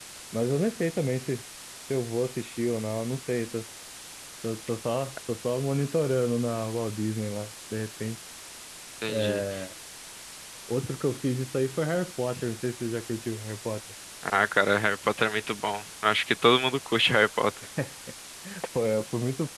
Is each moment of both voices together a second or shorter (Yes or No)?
Yes